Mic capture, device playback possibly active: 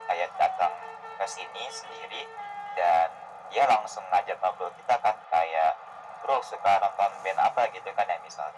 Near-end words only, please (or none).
none